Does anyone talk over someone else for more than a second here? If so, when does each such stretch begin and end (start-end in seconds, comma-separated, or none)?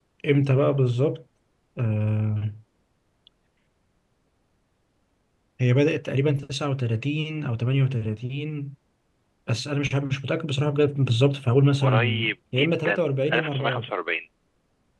11.8-13.9